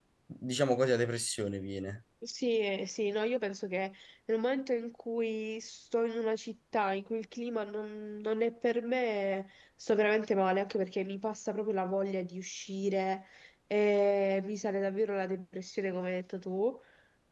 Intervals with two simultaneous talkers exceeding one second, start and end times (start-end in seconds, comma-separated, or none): none